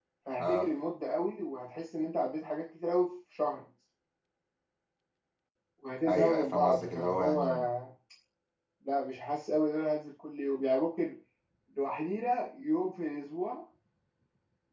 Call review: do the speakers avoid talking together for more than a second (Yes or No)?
No